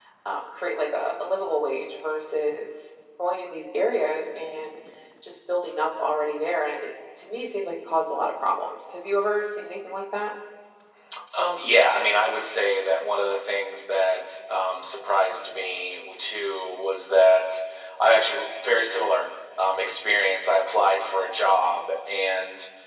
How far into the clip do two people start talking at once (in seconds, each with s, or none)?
none